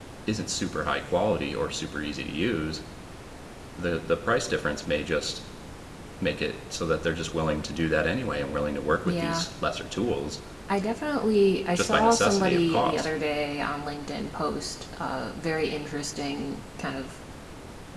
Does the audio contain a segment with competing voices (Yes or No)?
Yes